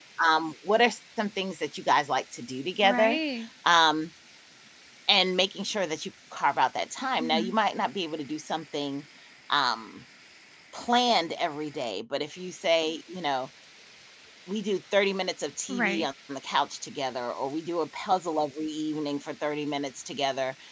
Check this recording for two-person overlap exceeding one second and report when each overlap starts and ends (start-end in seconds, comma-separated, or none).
none